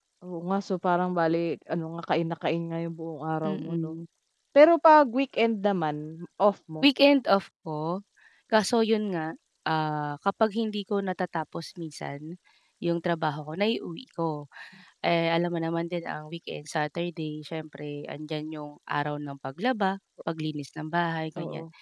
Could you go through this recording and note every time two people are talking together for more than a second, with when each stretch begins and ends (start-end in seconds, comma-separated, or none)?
none